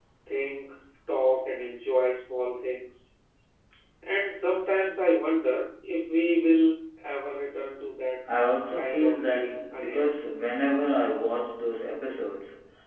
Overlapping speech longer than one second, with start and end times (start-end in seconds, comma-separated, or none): 8.7-10.1